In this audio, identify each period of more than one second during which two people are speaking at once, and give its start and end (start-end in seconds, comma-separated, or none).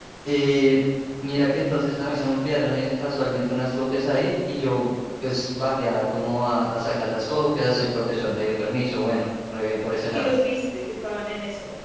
none